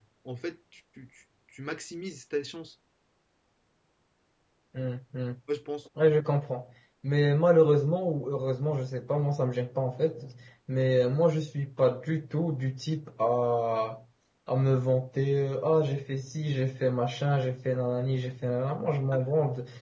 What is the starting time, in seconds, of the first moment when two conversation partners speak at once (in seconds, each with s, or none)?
none